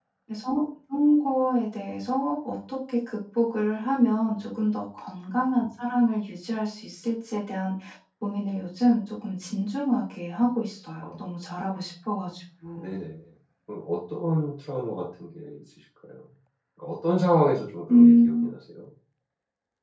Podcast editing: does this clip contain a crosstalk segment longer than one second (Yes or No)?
No